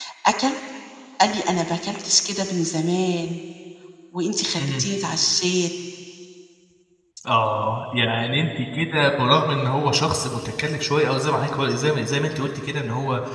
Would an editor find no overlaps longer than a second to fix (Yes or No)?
Yes